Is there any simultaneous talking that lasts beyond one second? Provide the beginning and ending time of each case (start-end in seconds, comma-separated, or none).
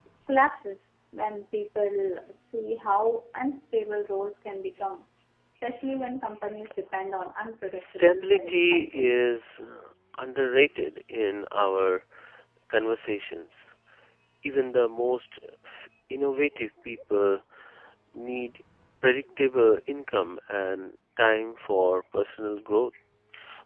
7.7-9.1